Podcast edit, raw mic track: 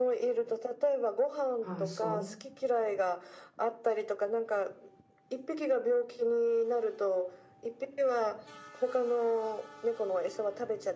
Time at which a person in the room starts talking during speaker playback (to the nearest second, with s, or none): 2 s